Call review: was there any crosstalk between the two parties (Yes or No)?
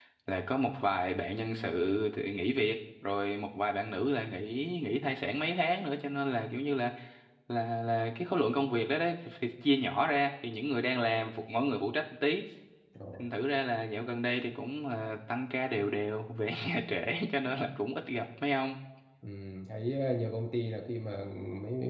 No